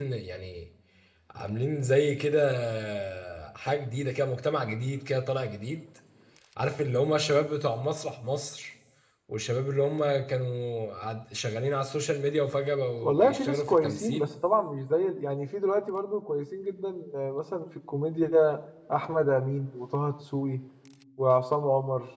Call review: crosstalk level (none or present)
present